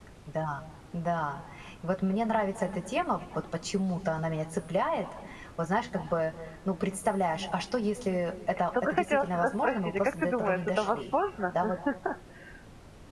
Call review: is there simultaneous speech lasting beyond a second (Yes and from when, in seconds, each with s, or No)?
Yes, from 8.7 s